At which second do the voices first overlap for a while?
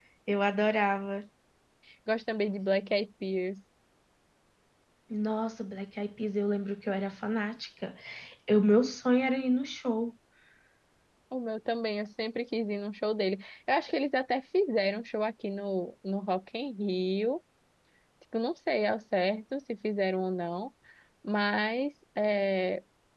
none

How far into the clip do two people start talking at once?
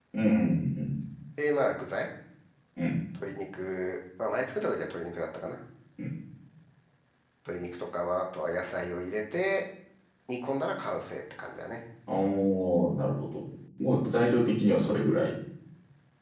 none

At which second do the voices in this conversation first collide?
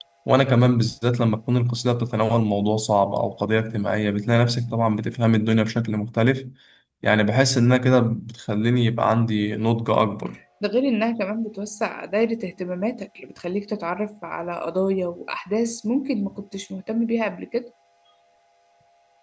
none

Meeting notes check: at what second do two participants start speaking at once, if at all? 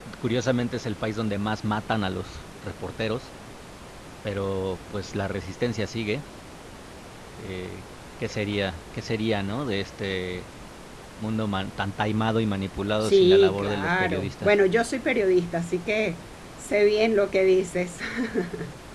13.0 s

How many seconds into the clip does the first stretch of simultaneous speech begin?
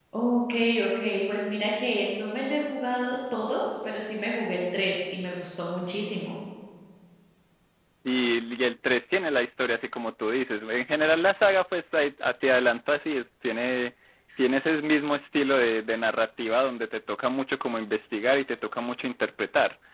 none

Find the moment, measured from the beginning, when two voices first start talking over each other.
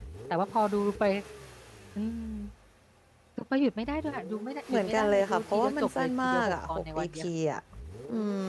4.7 s

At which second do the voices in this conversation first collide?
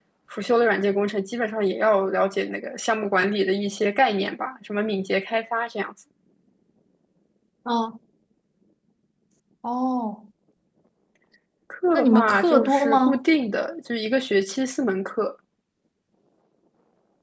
11.9 s

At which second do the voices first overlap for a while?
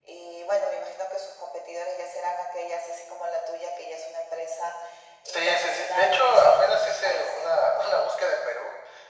5.3 s

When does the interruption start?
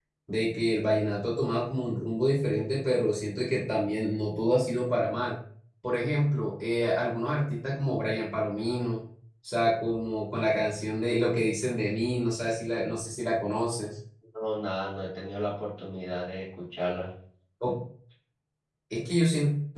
none

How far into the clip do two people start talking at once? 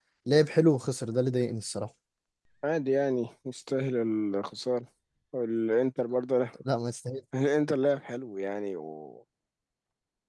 none

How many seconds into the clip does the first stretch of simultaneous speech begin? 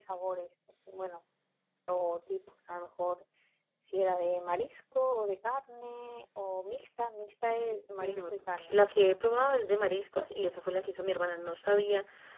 7.5 s

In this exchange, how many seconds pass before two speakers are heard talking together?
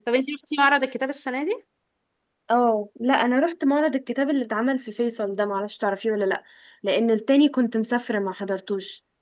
none

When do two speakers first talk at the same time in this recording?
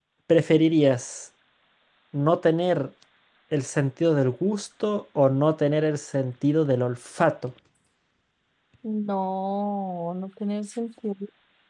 none

